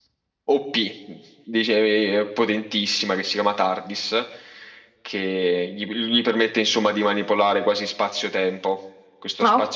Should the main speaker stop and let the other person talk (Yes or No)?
No